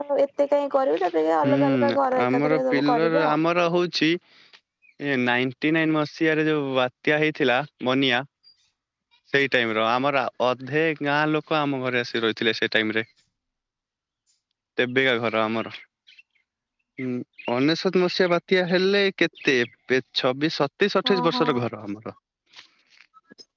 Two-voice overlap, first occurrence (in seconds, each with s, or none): 1.5 s